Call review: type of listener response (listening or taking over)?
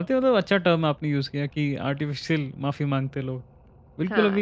listening